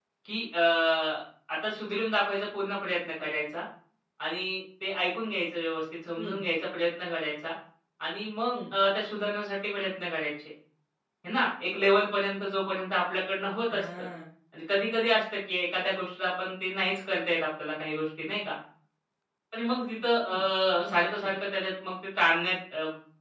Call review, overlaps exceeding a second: none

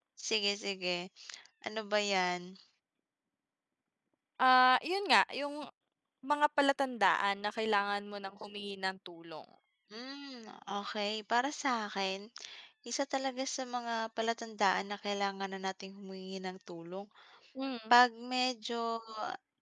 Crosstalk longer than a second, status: none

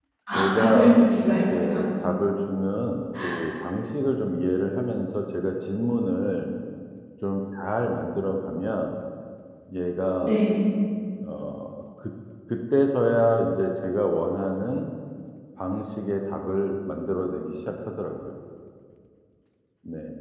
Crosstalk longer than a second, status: present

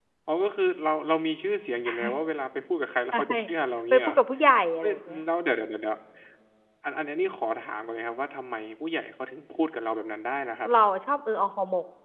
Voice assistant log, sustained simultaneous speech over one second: none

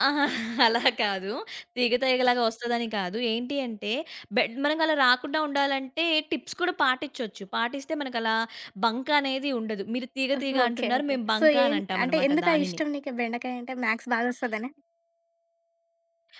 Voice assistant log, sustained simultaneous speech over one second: present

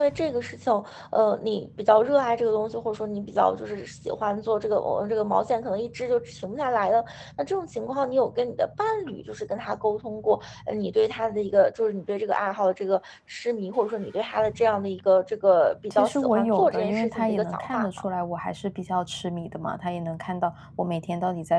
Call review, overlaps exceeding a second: present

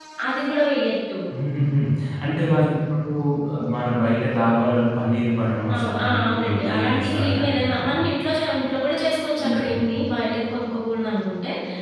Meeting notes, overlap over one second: present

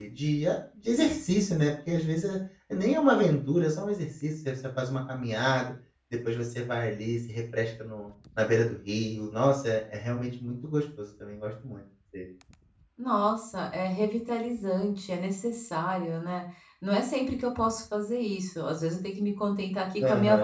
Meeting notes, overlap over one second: none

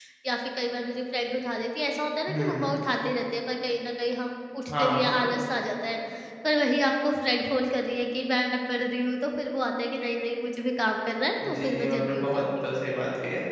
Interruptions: present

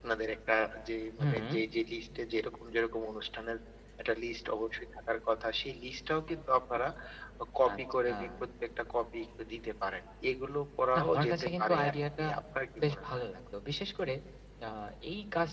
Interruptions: present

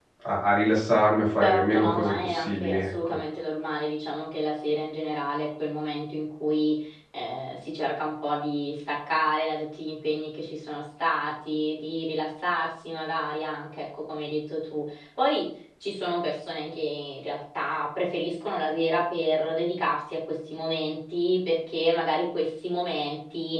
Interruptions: present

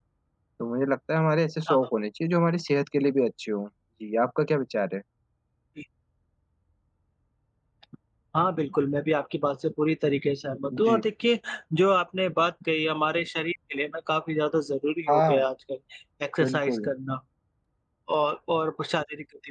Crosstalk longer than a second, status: none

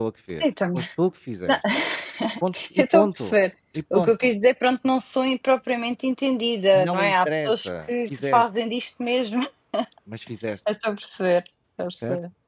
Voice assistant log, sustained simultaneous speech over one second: present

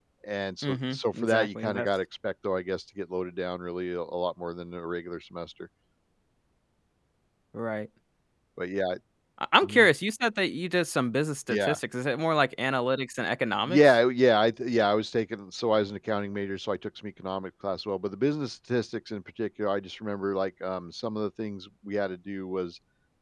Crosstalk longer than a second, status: present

